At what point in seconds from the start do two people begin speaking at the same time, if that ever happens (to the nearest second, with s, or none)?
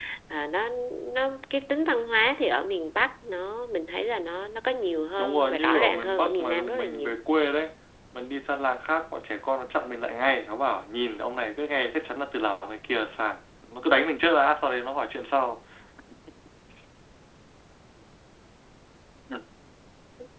5 s